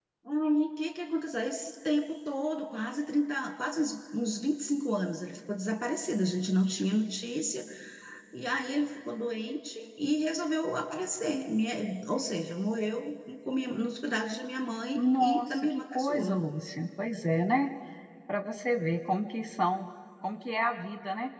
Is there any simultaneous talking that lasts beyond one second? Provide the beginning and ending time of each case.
15.0-16.4

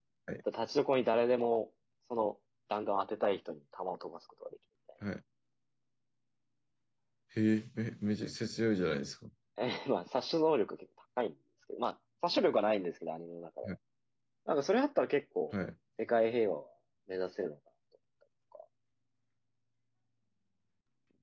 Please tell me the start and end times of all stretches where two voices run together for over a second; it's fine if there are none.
none

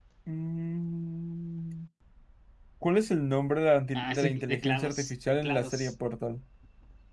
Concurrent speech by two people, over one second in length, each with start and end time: 4.0-5.9

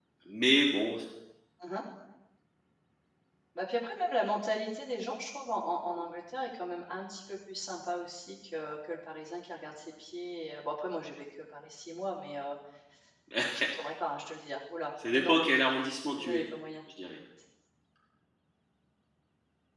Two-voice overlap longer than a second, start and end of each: none

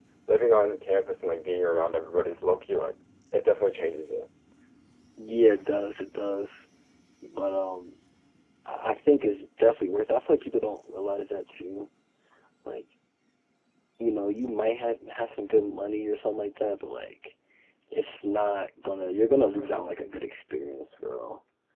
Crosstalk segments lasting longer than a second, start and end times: none

